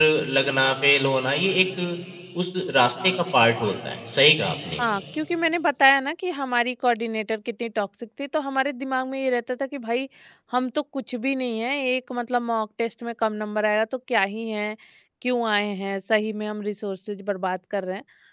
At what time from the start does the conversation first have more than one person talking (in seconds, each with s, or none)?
none